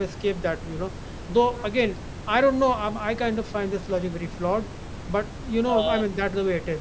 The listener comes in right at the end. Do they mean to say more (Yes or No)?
No